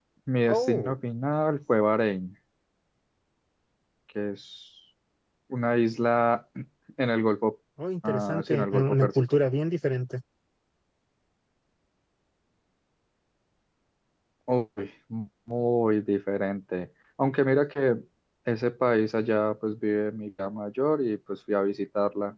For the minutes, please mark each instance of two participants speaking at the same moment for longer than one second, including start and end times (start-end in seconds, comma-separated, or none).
8.1-9.4